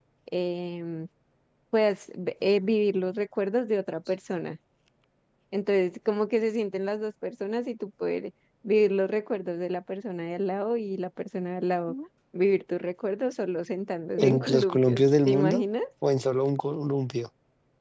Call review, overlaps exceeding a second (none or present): present